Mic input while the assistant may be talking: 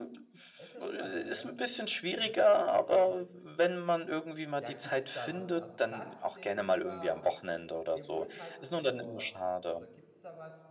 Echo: present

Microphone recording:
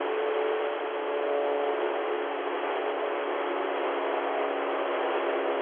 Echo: none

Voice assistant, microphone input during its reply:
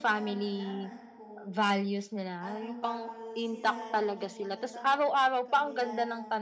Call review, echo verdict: present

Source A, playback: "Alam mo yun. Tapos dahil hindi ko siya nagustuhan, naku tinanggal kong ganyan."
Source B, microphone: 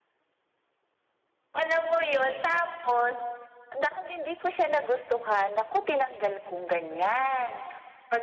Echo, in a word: present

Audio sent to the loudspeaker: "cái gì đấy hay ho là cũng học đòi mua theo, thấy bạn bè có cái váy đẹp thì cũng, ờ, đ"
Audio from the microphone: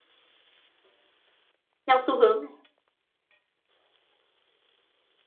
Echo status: none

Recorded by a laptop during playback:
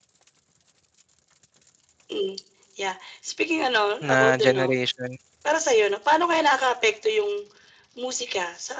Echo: present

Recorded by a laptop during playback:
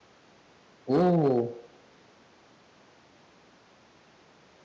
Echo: none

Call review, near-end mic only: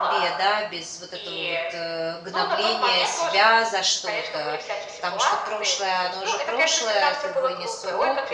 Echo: present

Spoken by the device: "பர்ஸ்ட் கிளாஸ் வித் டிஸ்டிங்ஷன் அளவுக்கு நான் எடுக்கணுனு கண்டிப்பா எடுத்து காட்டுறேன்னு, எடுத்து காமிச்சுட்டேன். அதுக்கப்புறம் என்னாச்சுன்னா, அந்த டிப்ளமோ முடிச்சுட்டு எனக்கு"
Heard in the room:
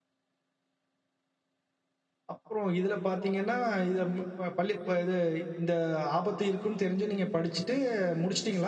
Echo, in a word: none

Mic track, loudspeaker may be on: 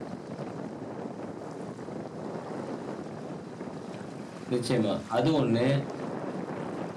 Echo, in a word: none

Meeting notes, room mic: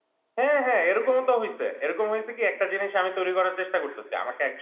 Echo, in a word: none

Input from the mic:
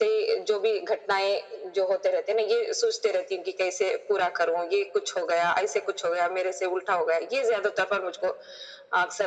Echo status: present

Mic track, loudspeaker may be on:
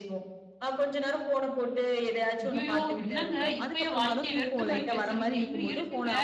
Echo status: present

